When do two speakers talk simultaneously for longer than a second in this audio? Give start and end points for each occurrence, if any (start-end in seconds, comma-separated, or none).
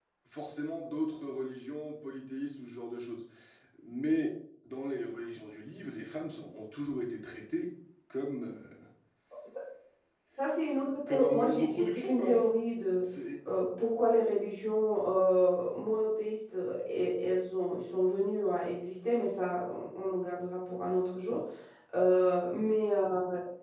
11.1-12.4